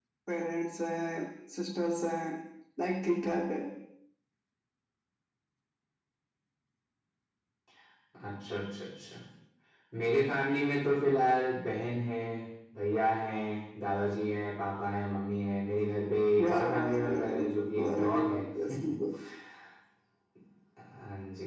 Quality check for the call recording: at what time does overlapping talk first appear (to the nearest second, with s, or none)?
16 s